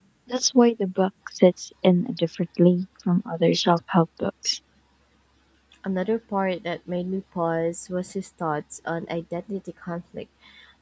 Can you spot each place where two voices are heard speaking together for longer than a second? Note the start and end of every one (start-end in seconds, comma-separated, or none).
none